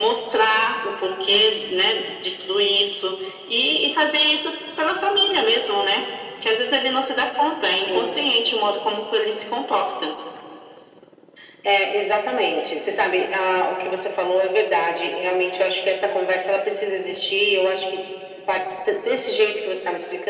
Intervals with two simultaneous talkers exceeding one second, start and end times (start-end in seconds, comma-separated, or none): none